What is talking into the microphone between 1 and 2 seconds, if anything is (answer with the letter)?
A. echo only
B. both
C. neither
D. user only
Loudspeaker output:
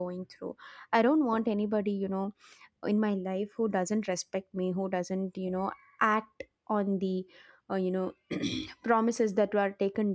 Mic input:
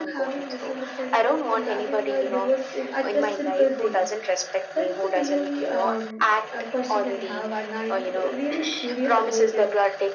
B